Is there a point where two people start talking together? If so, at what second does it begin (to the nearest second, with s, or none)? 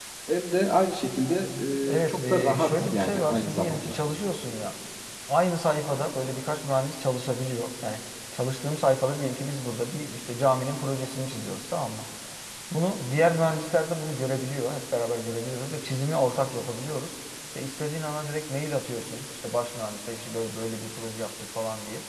2 s